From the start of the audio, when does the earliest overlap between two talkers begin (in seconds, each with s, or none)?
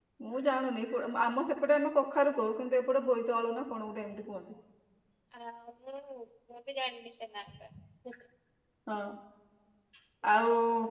none